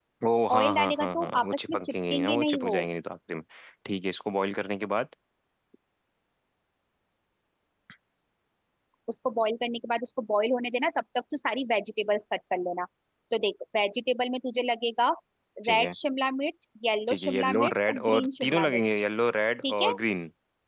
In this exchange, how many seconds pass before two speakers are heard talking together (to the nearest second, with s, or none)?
1 s